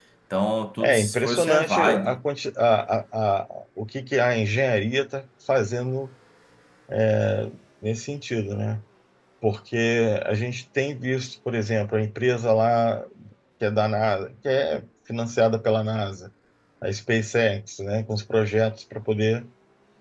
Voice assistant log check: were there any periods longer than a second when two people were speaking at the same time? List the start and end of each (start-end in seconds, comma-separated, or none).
0.8-2.2